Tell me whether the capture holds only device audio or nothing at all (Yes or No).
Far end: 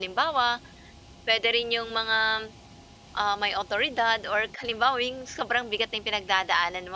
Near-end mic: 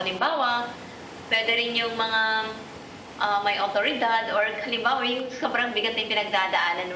Yes